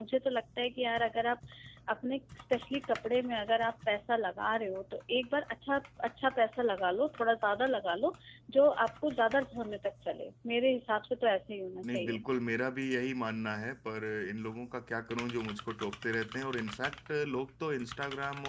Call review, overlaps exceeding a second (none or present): none